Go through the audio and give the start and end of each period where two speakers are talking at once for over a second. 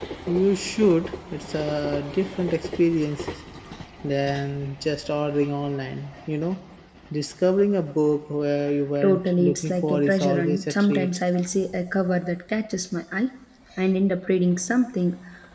9.0-11.1

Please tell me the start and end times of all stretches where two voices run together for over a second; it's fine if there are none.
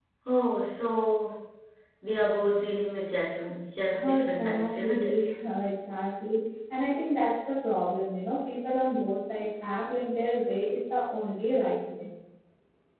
4.0-5.2

